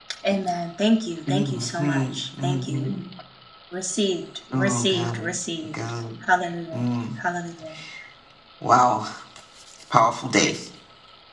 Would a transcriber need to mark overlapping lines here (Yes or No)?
Yes